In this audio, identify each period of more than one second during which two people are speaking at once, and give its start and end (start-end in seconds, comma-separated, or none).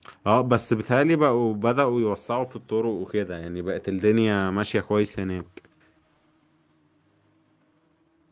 none